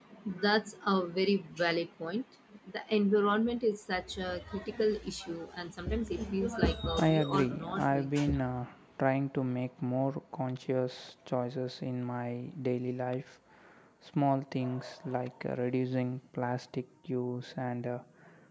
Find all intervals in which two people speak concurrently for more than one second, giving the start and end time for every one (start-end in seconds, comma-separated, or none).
7.0-8.4